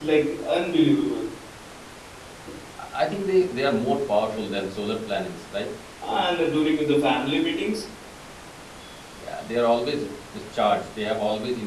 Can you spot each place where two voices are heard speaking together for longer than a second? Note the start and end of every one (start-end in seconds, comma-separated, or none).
none